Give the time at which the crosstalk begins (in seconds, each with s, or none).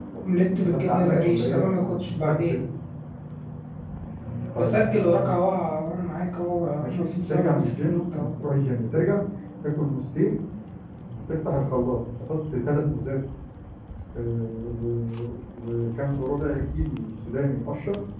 0.6 s